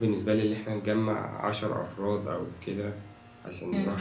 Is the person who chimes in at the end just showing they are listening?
No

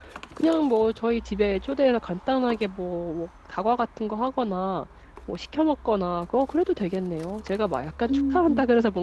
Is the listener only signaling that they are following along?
Yes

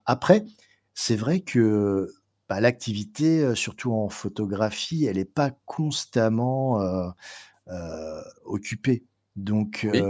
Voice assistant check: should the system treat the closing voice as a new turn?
No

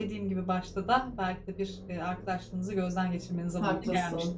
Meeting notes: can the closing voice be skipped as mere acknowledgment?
No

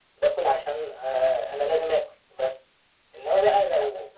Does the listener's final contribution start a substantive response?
No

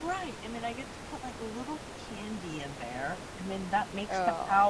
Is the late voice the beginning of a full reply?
No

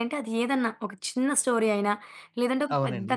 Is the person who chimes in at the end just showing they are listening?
Yes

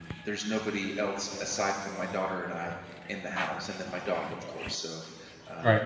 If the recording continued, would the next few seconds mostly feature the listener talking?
Yes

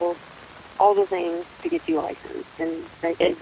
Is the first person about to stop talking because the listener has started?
Yes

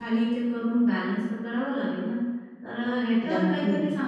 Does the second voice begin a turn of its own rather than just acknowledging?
No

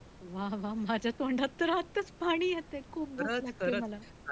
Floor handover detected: Yes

